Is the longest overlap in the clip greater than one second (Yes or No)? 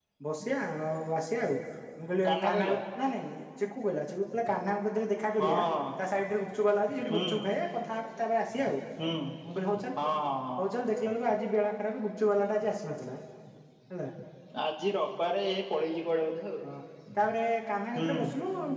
No